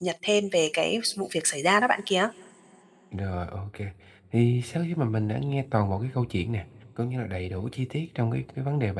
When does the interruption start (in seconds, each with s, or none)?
none